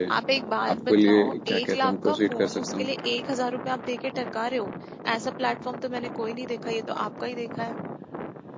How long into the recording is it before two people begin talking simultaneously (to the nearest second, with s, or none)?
1 s